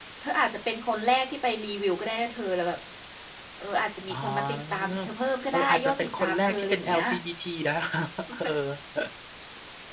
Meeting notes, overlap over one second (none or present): present